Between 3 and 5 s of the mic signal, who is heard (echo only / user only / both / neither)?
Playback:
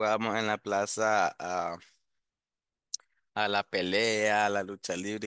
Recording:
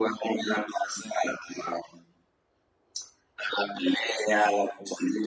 echo only